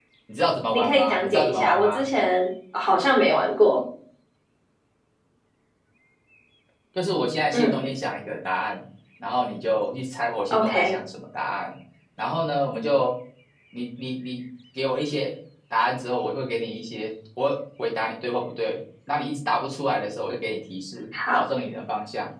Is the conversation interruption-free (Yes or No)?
No